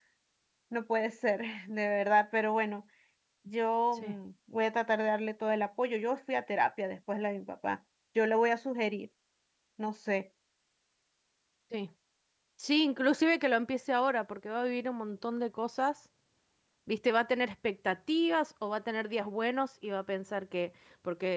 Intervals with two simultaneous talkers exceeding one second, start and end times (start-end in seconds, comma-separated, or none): none